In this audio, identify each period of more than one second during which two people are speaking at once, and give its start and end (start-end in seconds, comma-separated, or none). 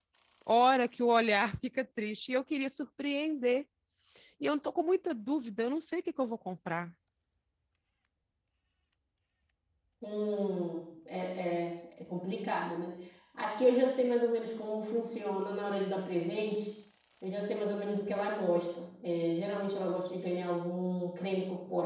none